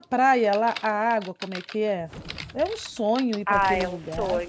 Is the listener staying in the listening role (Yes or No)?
No